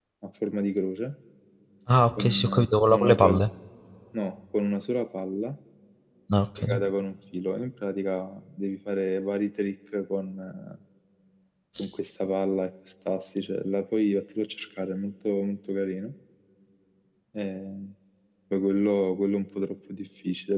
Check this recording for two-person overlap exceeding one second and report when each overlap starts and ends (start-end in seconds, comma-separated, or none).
2.2-3.4